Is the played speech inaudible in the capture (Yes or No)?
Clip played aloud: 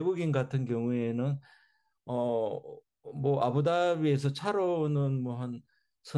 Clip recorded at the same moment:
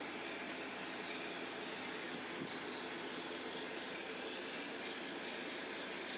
Yes